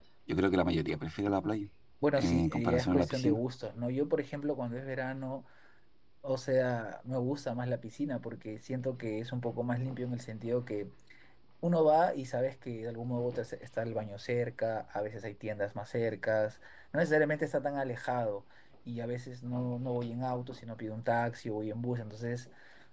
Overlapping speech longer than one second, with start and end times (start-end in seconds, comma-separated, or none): 2.2-3.4